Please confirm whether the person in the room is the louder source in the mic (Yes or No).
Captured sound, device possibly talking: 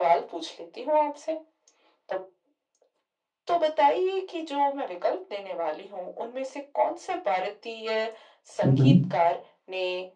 Yes